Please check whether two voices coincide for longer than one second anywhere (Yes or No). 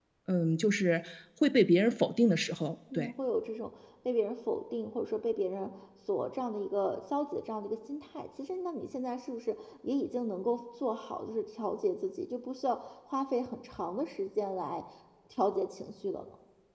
No